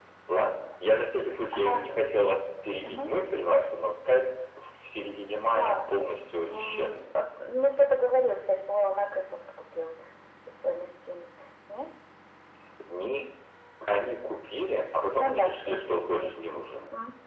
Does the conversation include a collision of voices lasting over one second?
Yes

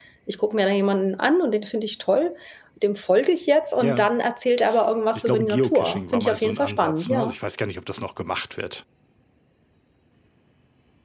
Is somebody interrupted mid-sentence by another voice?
Yes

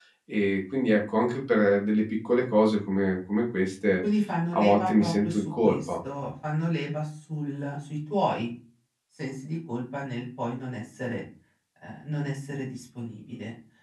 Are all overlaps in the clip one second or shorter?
No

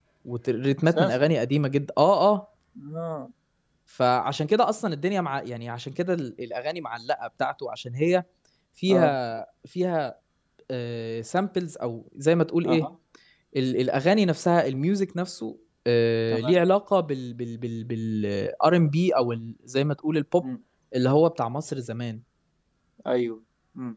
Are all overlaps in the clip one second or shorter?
Yes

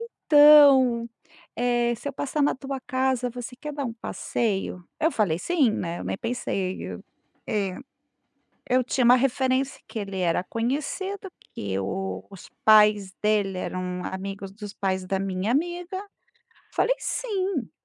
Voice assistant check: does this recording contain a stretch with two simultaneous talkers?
No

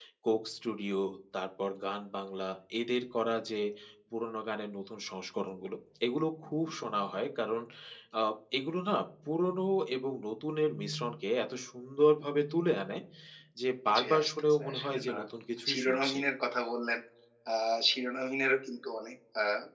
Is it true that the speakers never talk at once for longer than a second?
No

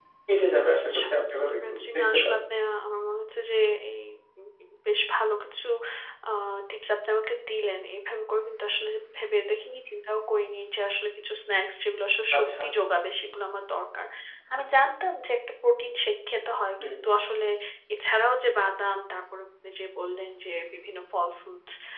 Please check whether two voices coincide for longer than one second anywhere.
Yes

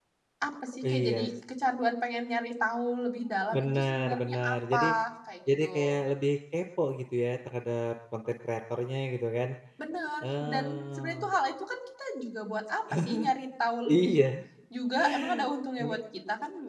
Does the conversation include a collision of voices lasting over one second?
Yes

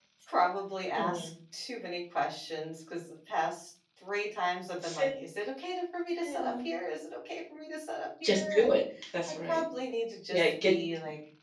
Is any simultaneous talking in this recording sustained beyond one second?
No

